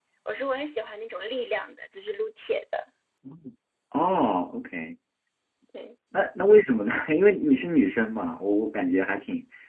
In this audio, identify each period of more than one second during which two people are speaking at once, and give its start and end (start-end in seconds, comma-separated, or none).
none